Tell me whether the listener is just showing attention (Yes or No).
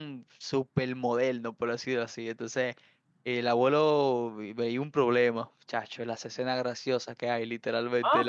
No